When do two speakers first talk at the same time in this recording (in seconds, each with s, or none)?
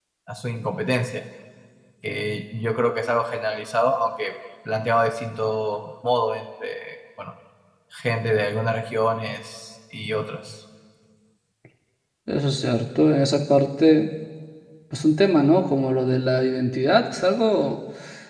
none